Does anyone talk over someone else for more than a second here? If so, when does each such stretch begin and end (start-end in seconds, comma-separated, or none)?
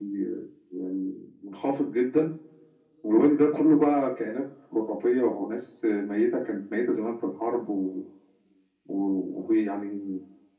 none